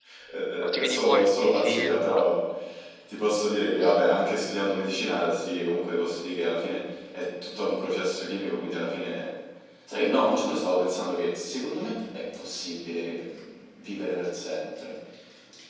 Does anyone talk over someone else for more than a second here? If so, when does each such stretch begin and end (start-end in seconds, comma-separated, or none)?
0.8-2.1